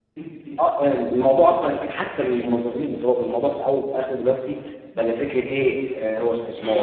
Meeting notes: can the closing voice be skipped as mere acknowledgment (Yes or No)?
Yes